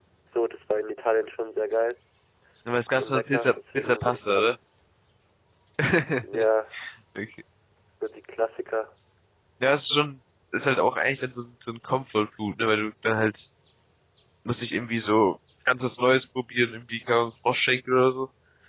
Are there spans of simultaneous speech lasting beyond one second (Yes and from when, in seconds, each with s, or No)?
Yes, from 3.0 s